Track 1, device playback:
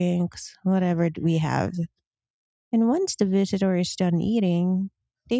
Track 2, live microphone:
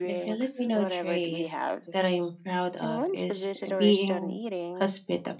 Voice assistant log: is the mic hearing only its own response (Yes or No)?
No